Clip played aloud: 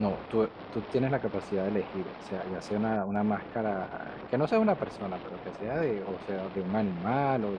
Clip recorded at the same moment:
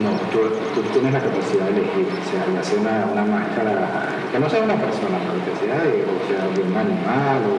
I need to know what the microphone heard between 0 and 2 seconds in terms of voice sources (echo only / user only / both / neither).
echo only